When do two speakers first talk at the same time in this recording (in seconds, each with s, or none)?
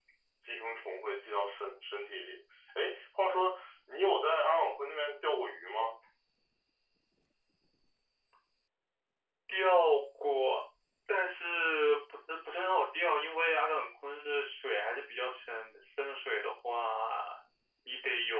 none